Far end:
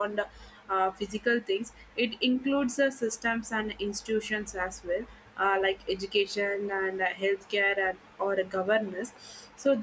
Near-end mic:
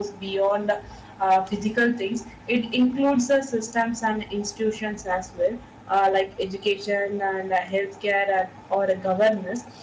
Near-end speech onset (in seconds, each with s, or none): none